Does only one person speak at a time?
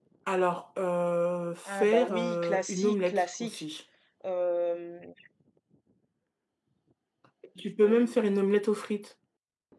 No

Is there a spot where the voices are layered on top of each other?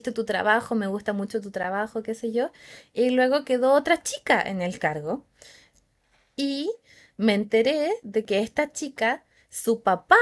No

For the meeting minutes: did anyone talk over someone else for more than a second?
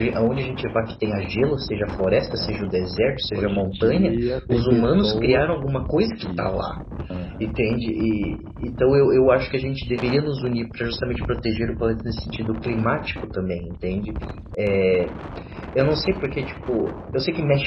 Yes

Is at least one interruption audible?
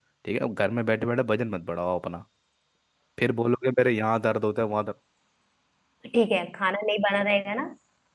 No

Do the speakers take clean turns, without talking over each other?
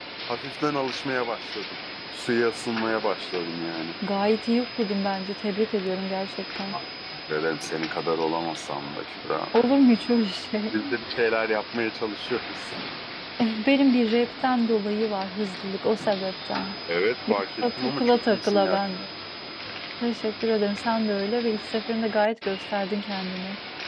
No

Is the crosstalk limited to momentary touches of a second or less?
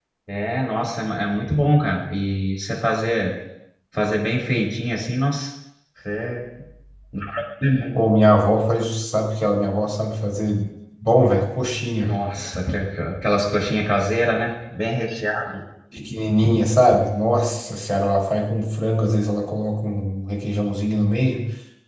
Yes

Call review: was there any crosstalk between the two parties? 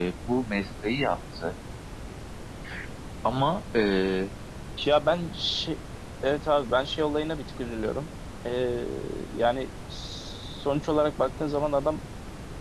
No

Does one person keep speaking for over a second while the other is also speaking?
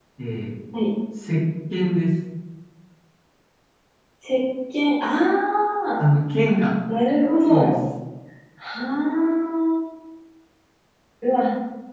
No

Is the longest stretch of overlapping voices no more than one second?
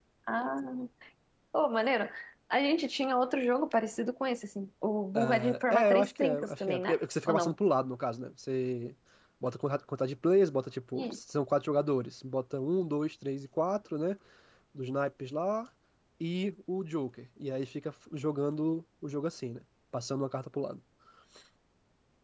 No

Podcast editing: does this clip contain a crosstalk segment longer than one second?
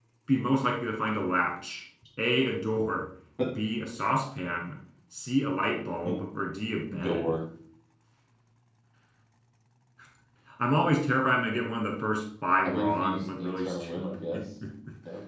Yes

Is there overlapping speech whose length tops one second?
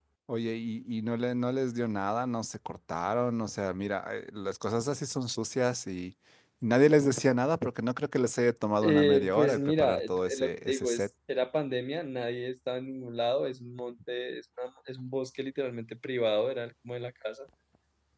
Yes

